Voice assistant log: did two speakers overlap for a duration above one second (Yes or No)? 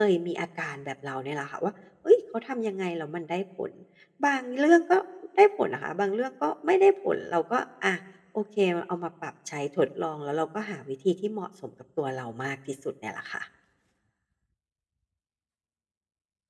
No